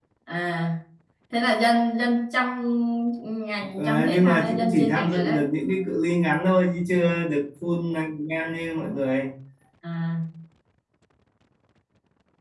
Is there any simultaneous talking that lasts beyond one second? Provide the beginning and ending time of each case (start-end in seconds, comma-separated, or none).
3.8-5.4